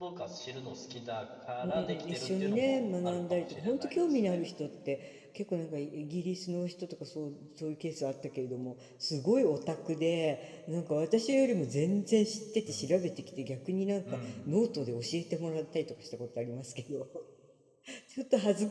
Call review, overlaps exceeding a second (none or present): present